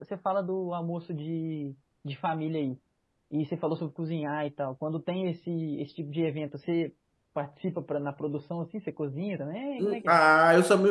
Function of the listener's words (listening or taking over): taking over